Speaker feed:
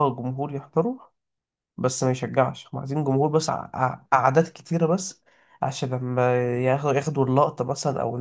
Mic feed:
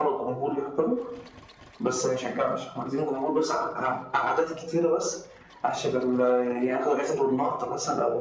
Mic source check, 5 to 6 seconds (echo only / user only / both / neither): echo only